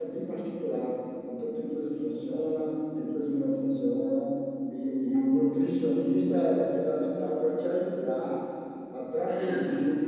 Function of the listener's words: listening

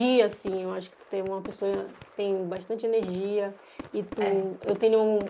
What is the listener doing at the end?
listening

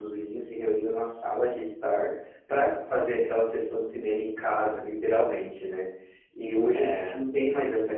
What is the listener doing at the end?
listening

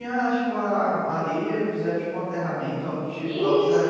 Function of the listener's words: taking over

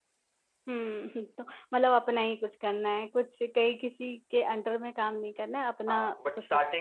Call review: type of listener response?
taking over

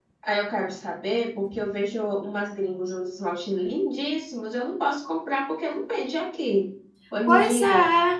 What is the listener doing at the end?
taking over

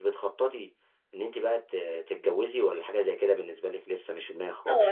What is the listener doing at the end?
taking over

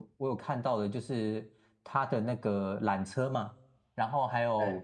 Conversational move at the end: listening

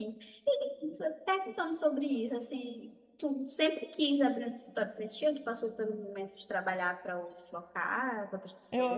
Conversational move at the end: taking over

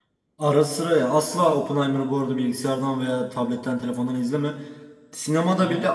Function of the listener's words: listening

